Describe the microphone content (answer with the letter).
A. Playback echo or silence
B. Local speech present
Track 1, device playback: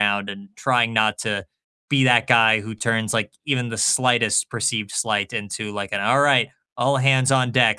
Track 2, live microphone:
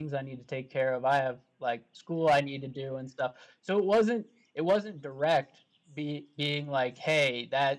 B